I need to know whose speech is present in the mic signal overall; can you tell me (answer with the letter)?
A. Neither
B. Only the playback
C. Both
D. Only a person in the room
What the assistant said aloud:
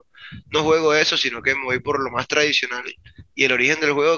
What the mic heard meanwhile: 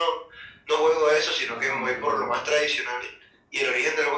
C